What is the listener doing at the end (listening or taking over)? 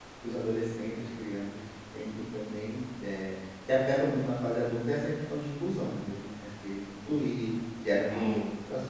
listening